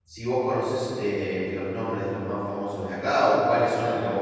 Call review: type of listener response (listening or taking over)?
taking over